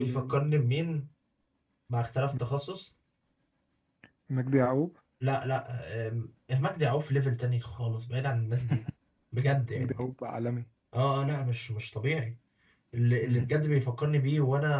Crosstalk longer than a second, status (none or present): none